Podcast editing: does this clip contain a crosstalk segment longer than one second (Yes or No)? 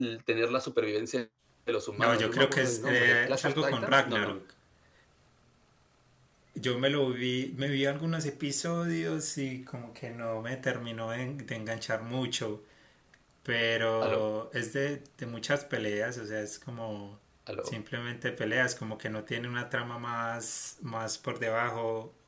Yes